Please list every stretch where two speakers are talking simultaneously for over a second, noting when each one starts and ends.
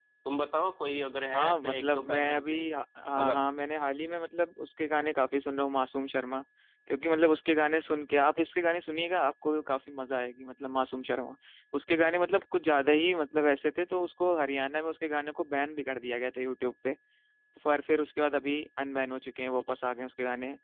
1.3-2.6

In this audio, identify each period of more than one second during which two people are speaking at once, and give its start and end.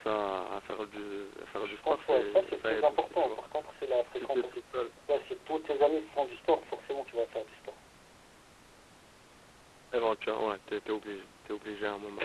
1.6-3.4

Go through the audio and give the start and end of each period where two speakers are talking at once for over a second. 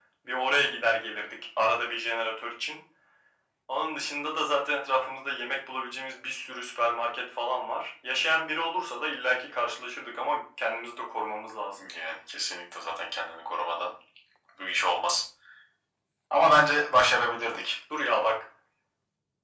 none

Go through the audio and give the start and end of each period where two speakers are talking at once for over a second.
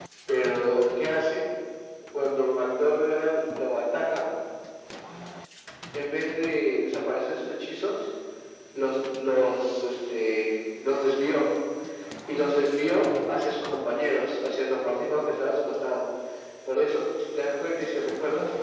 none

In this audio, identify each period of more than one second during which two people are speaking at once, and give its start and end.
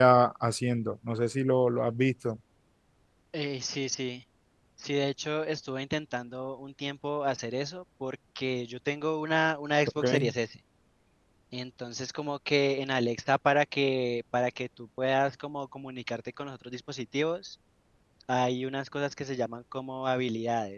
none

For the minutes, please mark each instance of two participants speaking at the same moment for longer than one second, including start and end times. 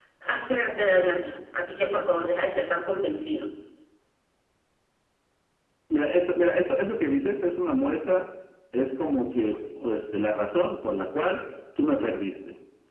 none

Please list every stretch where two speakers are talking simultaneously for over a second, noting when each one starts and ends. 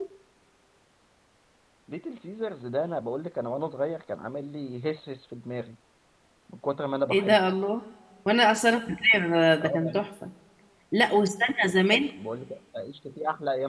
none

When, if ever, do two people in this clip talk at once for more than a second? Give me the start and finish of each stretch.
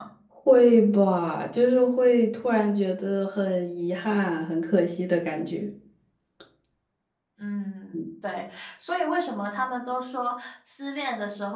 none

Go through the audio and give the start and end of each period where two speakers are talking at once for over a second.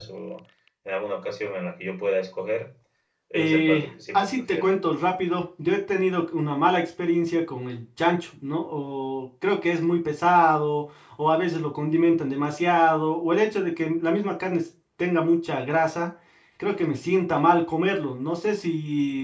3.4-4.7

